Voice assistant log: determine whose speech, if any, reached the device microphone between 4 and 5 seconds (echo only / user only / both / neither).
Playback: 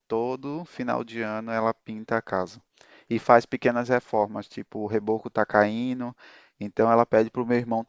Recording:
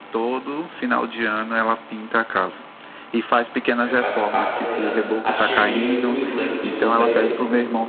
both